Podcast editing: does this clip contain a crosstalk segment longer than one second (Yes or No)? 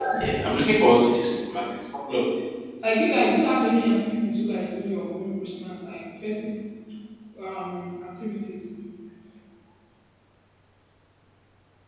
No